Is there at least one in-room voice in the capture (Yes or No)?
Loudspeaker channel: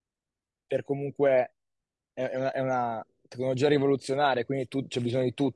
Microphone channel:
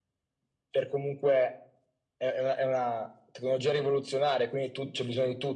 No